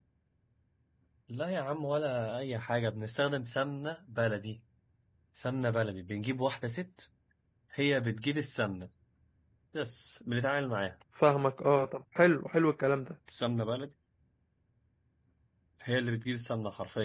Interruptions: none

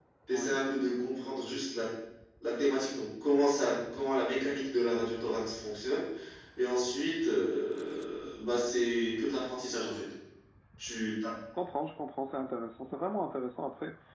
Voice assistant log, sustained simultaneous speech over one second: none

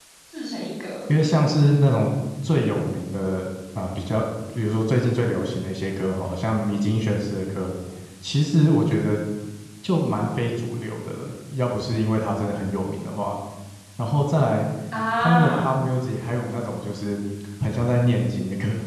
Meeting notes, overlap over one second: none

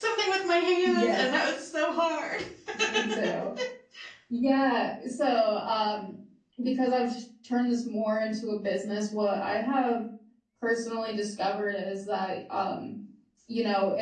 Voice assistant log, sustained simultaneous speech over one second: none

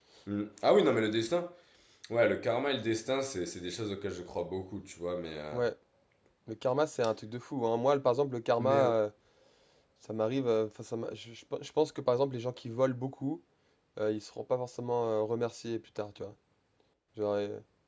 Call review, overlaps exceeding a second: none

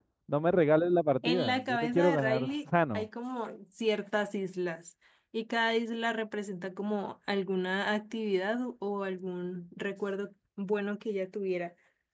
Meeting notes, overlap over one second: present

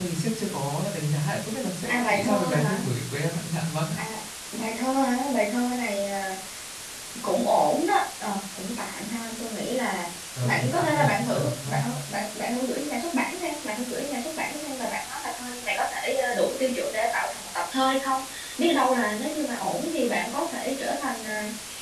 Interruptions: present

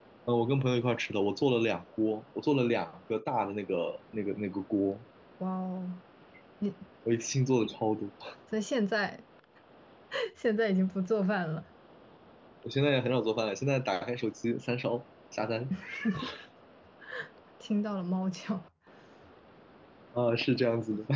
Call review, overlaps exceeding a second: none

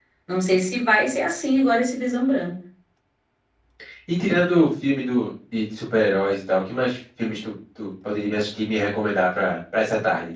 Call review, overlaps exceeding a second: none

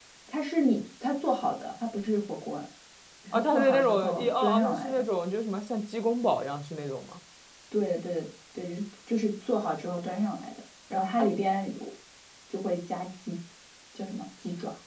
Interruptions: present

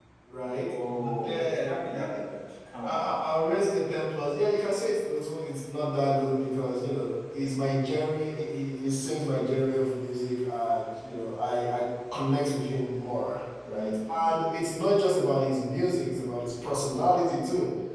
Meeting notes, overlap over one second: present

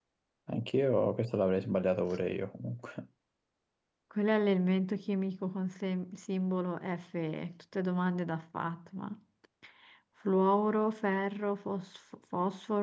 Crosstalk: none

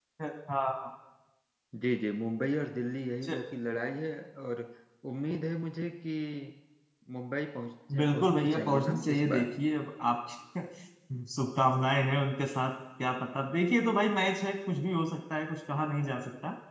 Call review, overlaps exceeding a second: present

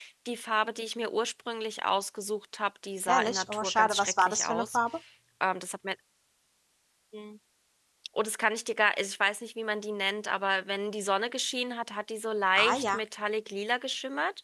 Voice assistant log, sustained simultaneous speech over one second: present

